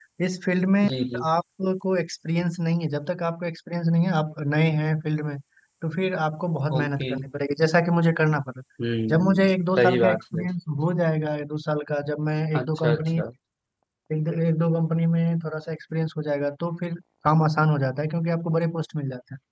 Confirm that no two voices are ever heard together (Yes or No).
No